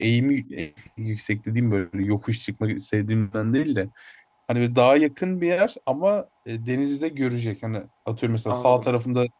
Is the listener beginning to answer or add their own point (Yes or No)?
No